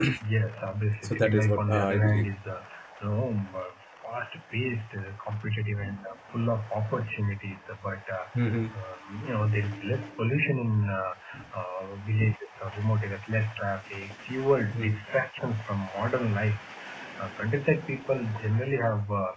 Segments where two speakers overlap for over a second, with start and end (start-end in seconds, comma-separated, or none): 1.0-2.3